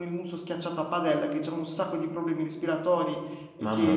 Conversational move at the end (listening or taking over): listening